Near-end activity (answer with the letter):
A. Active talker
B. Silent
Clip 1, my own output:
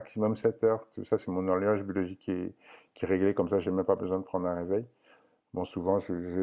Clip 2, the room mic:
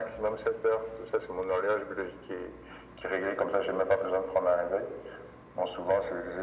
B